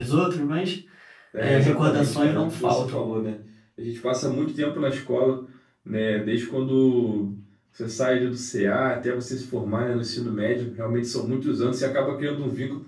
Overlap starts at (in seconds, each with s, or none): 1.4 s